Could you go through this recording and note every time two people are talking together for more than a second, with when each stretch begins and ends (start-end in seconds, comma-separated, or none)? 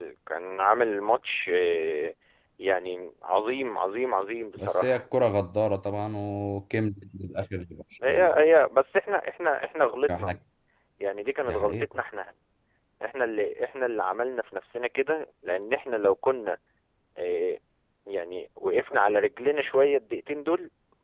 none